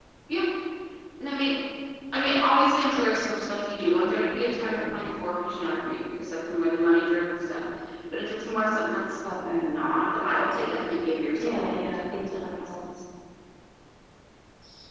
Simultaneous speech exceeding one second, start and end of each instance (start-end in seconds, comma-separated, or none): 11.4-12.8